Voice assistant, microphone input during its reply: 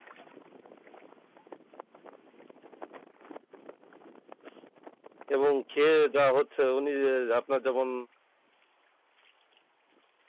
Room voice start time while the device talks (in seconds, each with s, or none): 5.3 s